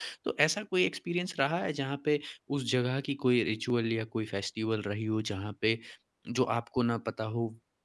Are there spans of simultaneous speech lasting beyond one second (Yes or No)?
No